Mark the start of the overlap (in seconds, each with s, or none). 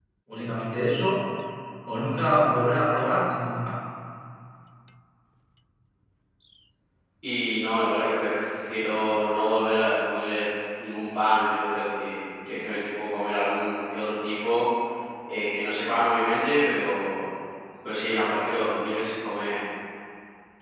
none